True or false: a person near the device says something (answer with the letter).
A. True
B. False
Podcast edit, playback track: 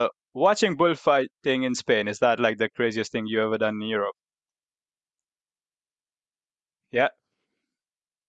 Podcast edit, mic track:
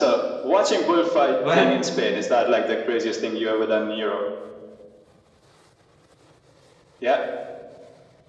A